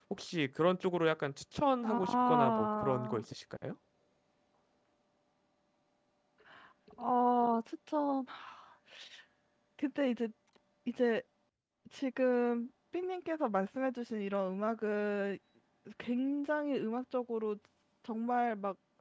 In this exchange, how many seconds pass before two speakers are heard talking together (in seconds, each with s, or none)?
1.8 s